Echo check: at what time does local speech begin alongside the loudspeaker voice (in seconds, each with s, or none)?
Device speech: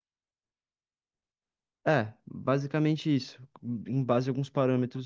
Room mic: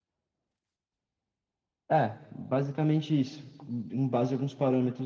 none